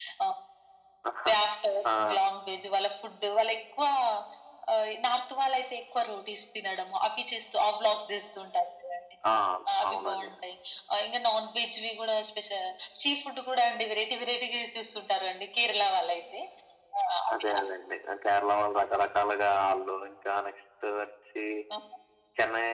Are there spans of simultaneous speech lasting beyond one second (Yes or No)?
No